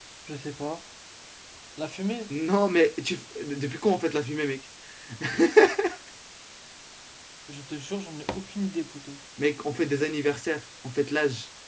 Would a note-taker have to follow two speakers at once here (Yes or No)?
No